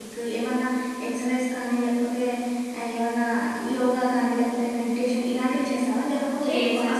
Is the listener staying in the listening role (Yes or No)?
Yes